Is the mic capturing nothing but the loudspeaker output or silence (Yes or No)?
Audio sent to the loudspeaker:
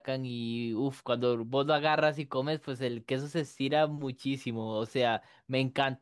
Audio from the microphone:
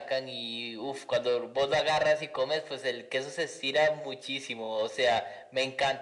Yes